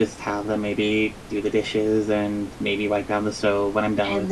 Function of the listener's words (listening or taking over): taking over